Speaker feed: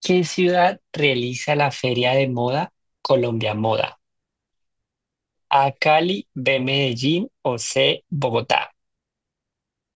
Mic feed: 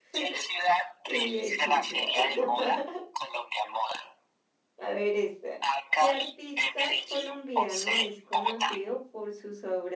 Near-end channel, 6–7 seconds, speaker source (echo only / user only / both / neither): both